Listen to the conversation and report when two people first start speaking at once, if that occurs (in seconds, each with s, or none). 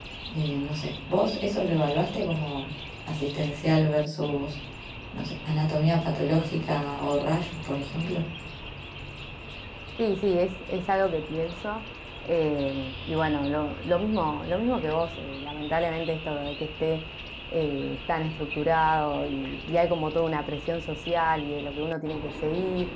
none